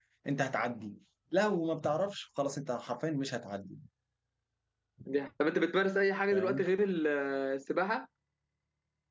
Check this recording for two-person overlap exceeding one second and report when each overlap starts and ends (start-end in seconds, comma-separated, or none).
none